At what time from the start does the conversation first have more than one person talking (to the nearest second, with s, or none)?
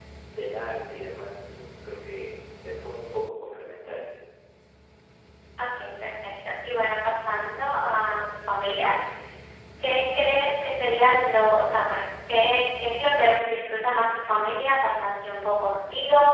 none